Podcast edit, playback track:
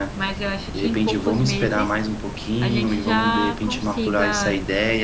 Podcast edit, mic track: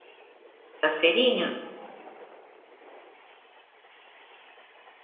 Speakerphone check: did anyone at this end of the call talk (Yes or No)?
Yes